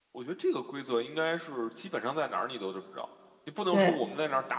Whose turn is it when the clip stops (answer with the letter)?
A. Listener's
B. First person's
B